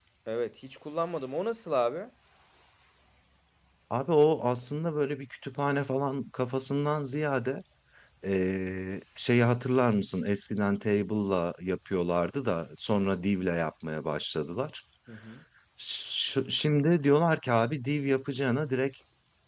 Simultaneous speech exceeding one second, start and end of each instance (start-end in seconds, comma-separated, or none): none